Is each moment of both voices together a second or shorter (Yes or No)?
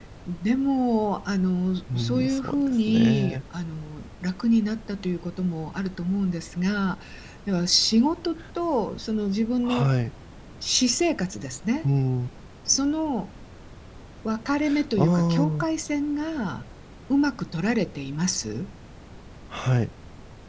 No